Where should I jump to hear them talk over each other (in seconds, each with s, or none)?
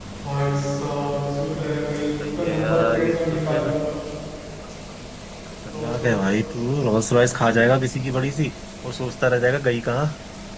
2.4 s